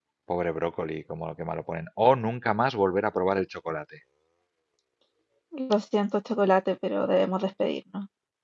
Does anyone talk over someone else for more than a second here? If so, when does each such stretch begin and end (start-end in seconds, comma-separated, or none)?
none